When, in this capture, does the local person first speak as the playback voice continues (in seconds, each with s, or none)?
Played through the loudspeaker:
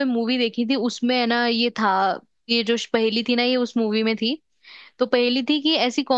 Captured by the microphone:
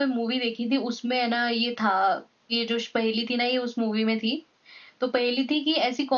none